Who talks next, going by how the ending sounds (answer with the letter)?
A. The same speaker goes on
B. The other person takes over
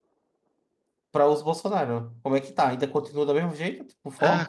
B